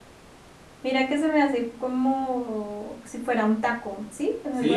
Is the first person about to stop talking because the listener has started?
Yes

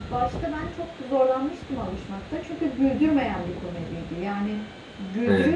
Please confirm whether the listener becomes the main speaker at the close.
No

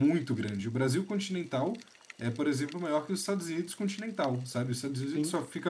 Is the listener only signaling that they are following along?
Yes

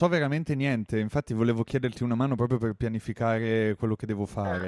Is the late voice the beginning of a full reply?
Yes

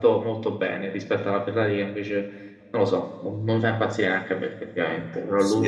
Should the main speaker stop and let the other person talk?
Yes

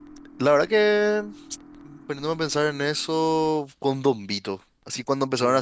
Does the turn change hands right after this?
No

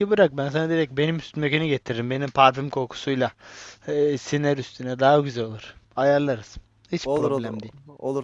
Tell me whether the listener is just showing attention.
No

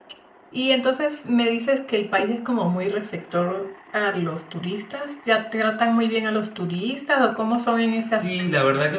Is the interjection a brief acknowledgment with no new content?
No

